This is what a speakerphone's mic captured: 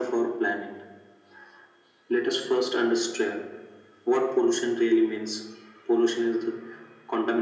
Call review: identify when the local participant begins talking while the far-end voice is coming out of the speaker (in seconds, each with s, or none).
none